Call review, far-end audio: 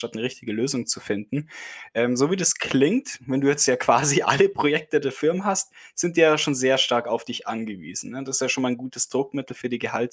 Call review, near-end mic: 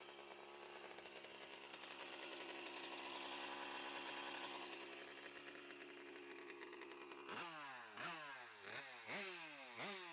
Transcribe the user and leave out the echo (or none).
none